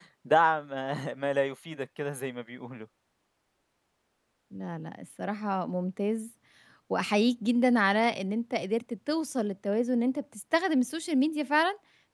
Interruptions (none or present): none